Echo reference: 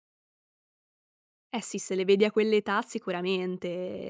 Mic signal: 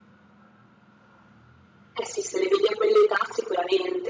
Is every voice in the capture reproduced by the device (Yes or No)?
Yes